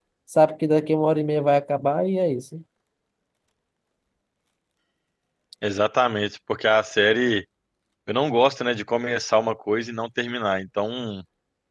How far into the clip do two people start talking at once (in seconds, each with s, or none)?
none